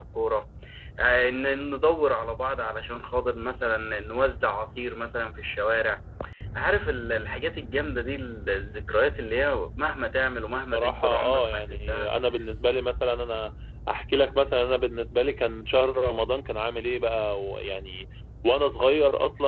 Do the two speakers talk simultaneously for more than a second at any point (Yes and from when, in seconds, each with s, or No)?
Yes, from 10.7 s